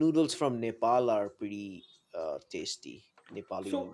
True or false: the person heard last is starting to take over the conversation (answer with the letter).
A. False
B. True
B